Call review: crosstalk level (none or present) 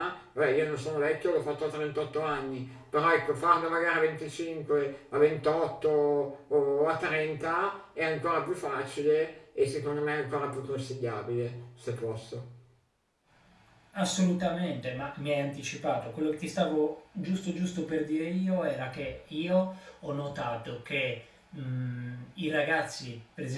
none